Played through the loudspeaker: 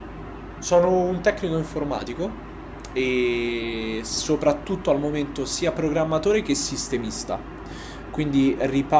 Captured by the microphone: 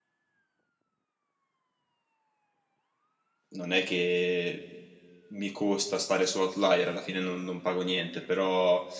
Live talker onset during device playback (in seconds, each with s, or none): 3.5 s